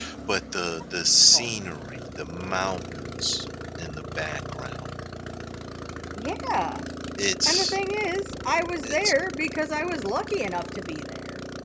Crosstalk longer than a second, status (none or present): none